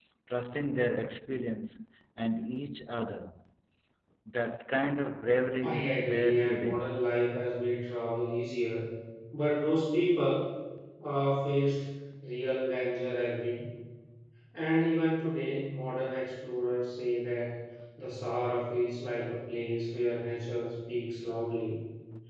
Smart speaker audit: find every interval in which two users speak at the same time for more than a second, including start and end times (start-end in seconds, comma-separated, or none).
5.6-6.9